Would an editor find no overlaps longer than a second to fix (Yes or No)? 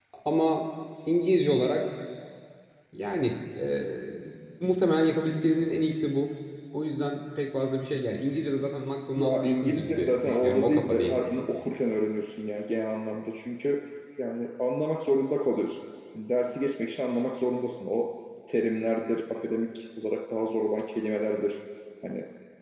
No